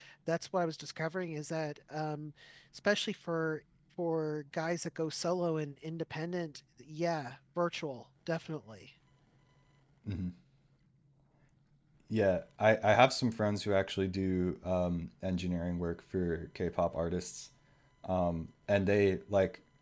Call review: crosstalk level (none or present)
none